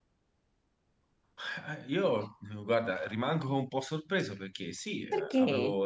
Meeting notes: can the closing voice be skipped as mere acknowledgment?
Yes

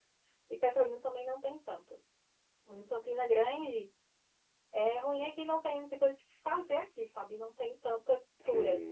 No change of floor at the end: Yes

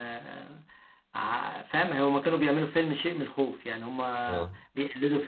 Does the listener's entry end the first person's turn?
No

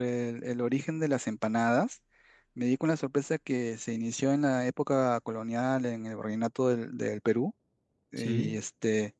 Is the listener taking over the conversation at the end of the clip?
No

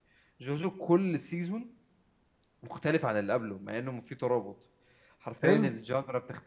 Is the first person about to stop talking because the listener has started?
No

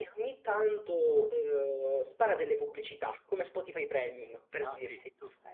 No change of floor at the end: No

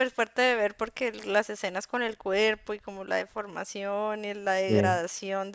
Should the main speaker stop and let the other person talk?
No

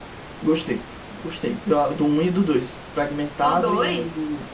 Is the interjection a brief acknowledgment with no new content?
Yes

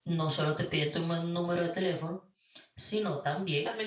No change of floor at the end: No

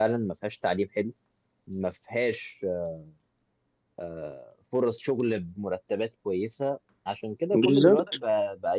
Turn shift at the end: No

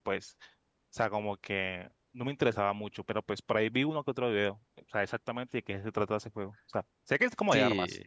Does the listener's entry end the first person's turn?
Yes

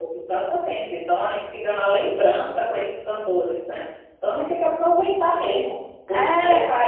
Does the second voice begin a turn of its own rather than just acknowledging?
No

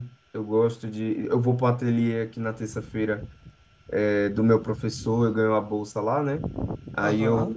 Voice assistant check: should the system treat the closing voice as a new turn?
No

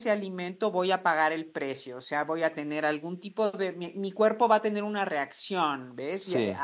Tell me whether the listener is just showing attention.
Yes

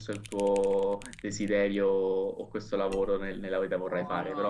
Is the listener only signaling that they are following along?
Yes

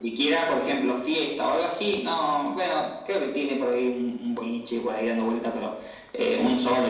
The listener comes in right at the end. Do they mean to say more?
No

